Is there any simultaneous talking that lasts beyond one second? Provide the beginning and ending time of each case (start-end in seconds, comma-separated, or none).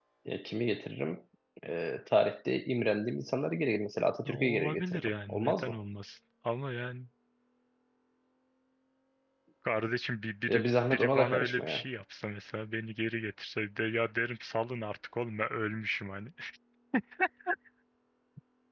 4.3-5.8, 10.5-11.8